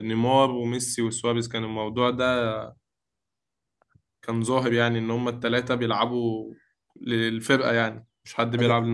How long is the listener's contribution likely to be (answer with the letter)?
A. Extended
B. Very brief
A